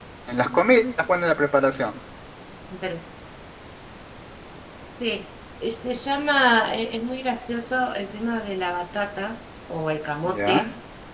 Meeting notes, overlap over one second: none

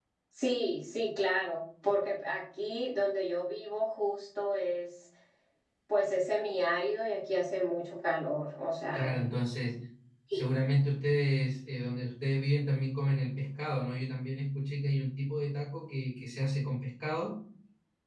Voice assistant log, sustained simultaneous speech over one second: none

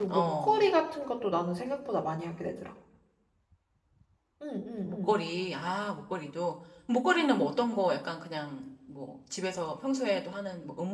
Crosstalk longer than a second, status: none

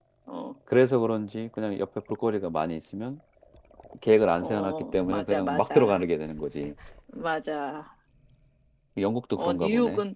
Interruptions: present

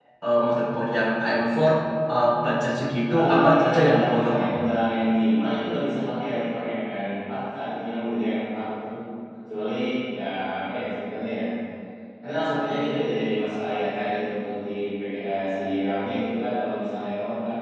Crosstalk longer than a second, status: present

